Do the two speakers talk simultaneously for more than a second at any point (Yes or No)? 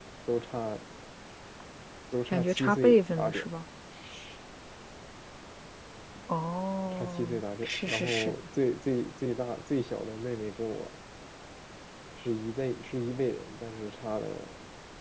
Yes